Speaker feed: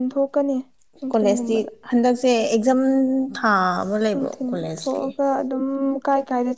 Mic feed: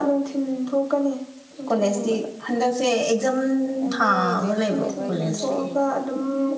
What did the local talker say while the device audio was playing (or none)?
ꯅꯪꯗꯤ ꯔꯦꯟꯗ ꯂꯩꯕ꯭ꯔꯣ ꯌꯨꯝꯗ ꯂꯩꯕ꯭ꯔꯣ